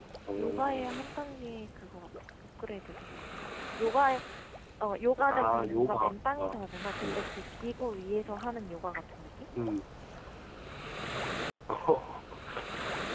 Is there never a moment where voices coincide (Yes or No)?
No